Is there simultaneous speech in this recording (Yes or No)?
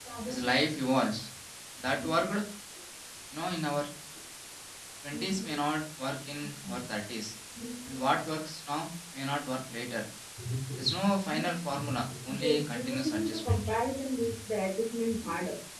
Yes